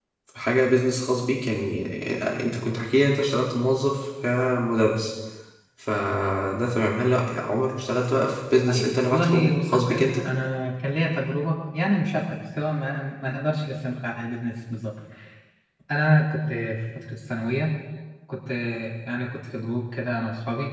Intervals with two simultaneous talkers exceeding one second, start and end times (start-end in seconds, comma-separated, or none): 8.7-10.1